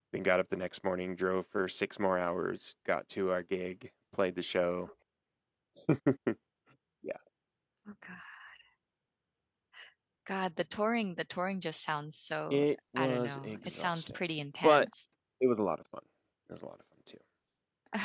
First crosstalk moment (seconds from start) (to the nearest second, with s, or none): 13 s